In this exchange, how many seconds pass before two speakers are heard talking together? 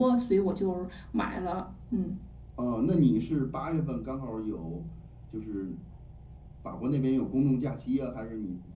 none

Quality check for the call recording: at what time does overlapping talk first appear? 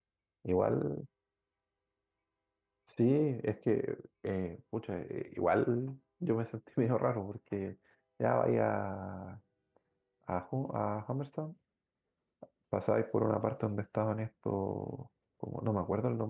none

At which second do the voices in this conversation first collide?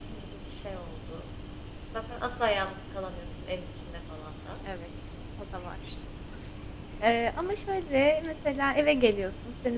none

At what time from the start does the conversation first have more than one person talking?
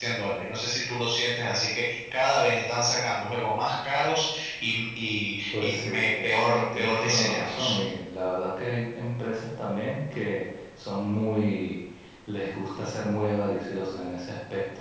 5.5 s

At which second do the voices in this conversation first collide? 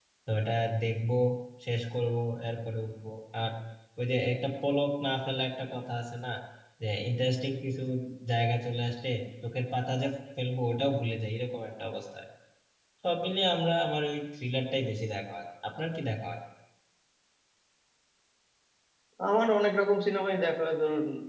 none

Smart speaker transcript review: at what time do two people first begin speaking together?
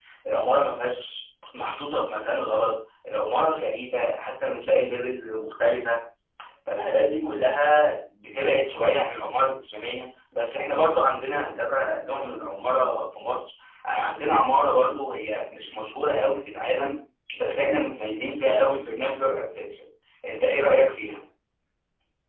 none

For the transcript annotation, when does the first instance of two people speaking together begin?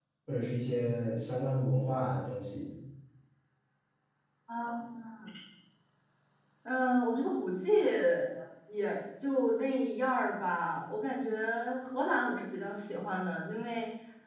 none

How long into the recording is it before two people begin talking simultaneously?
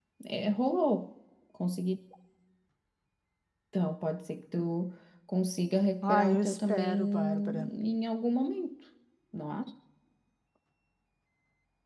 6.0 s

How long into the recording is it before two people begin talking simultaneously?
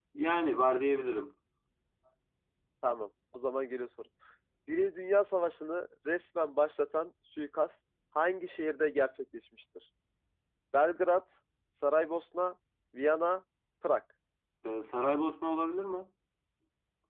none

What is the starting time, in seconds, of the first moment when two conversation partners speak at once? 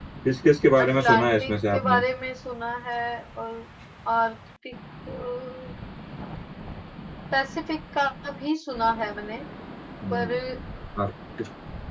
0.8 s

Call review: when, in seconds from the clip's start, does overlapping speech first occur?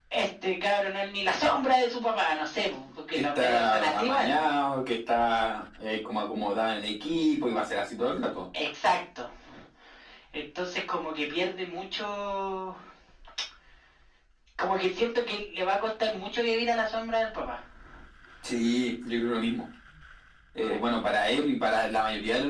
3.1 s

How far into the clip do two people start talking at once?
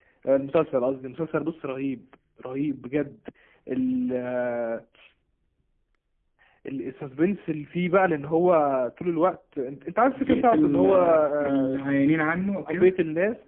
10.1 s

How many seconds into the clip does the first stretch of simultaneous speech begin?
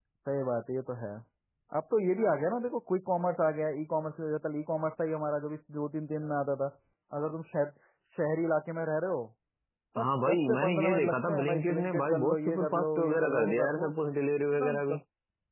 10.0 s

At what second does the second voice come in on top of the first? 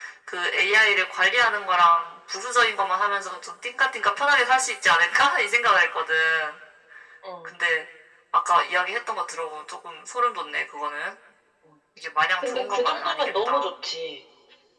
12.4 s

